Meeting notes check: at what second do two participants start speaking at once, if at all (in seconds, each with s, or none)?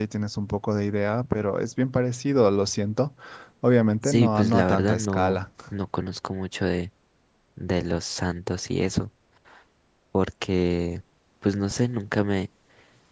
4.0 s